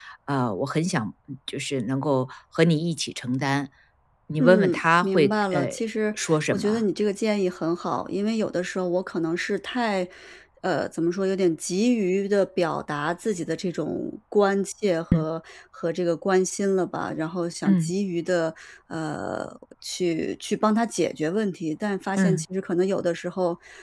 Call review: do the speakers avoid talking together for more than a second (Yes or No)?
No